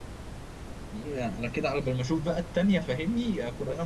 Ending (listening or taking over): taking over